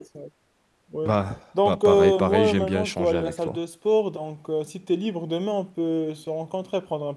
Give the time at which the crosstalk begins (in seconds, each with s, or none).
1.6 s